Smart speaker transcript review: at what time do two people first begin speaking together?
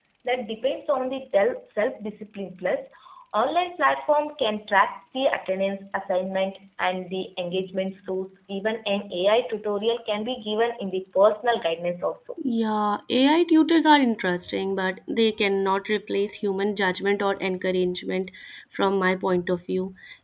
none

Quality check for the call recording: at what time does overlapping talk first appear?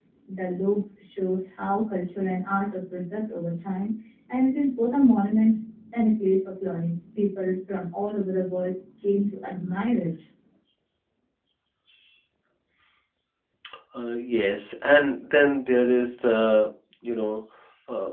none

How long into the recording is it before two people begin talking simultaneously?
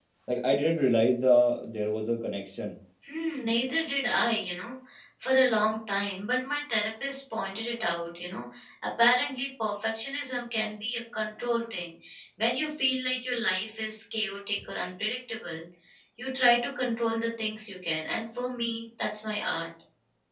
none

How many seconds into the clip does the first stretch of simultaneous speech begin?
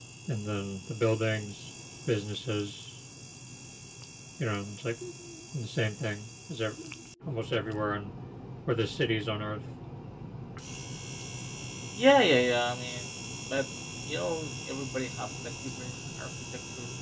none

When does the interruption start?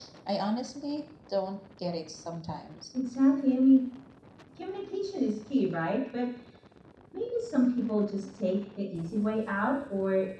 none

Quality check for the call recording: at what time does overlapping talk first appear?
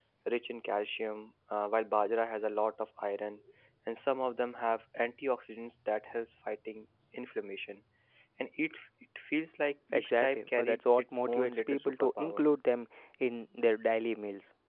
9.9 s

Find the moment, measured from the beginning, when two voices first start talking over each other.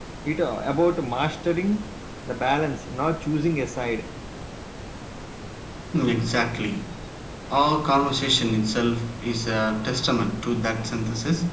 none

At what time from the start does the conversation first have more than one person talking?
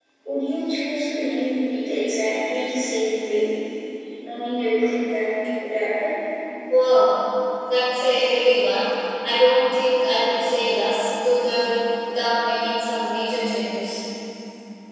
none

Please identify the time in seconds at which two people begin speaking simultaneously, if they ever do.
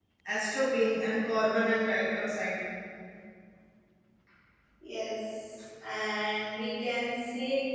none

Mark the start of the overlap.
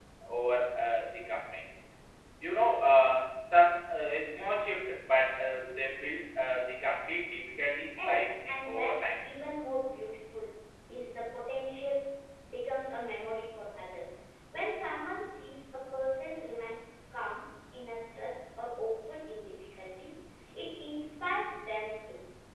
8.0 s

